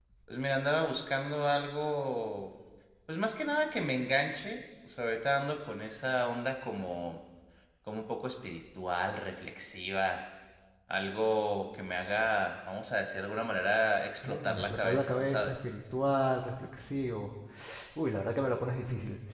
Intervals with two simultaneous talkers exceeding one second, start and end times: 14.2-15.5

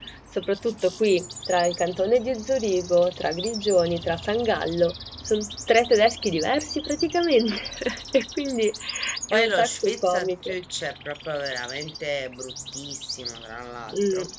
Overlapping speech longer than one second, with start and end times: 9.3-10.5

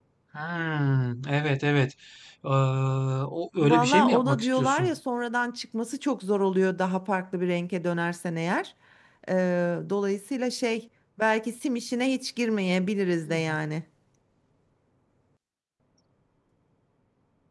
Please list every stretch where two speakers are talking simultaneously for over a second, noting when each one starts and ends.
3.6-5.0

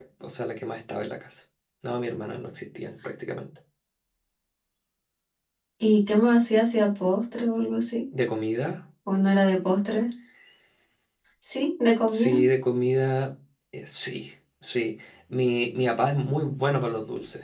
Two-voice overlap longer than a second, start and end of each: none

